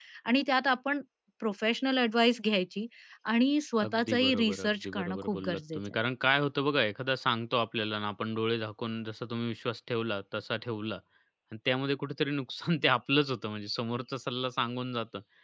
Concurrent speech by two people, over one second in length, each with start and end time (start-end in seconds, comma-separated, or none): 3.9-5.8